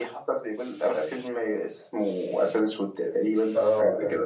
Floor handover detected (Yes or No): Yes